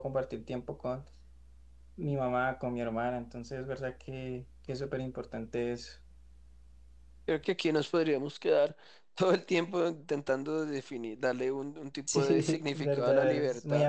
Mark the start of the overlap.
12 s

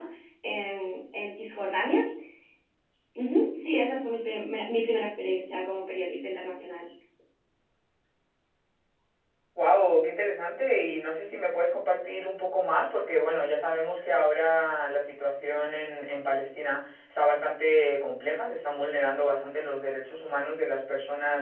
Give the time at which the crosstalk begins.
none

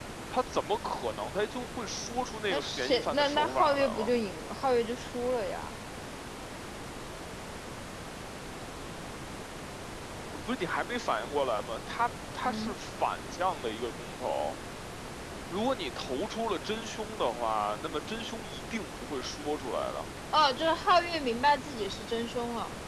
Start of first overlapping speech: 2 s

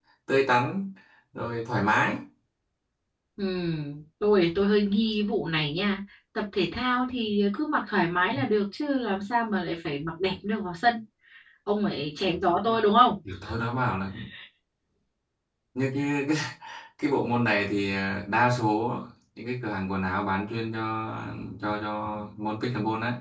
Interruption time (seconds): none

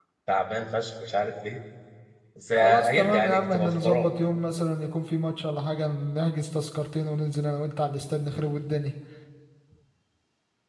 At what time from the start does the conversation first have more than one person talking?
3 s

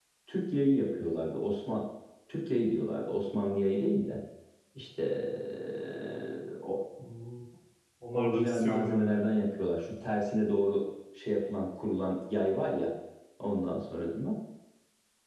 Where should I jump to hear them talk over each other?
8 s

